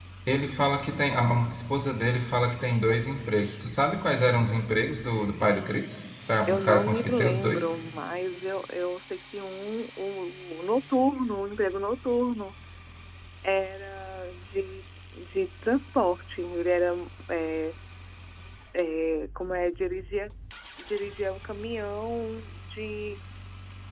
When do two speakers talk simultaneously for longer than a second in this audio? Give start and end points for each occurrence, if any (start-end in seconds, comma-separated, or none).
6.5-7.7